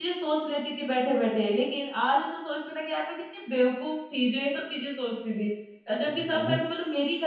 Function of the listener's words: listening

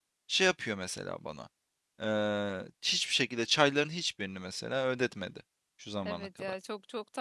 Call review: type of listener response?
taking over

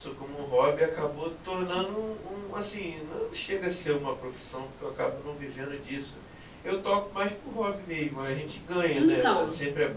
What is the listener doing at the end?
listening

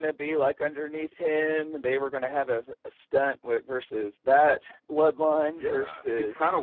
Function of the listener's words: taking over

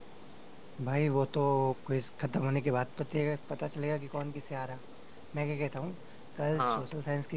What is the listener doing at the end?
listening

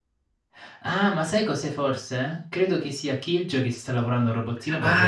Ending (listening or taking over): taking over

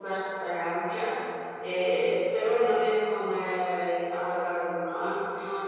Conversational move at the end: listening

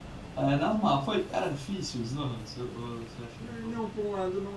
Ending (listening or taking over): taking over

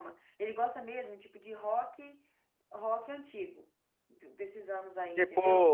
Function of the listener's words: taking over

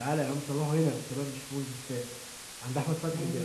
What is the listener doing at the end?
listening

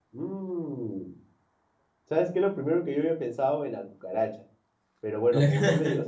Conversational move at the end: listening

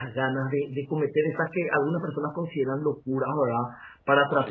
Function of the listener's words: listening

